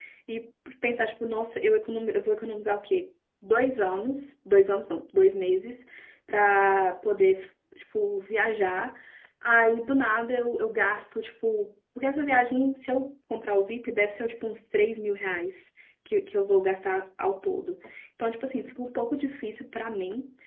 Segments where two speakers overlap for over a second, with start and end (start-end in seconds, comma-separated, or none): none